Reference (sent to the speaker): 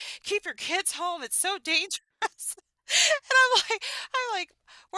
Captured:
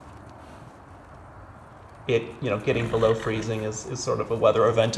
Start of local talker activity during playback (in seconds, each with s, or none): 2.0 s